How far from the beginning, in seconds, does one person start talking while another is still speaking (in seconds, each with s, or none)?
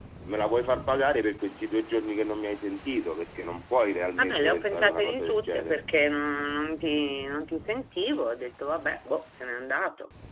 4.2 s